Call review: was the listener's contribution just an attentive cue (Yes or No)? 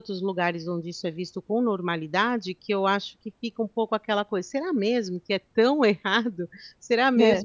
Yes